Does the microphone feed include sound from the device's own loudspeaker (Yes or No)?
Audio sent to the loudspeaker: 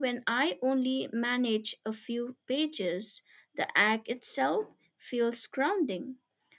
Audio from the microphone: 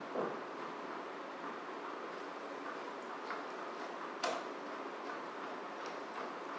No